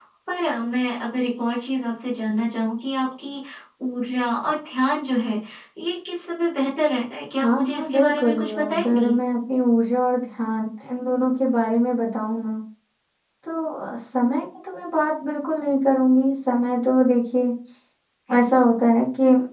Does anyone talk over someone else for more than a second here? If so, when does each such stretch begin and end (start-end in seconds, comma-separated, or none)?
7.4-9.1